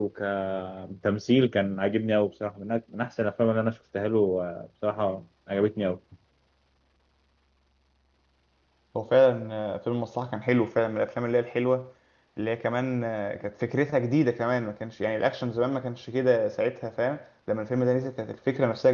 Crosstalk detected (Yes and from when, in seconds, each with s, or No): No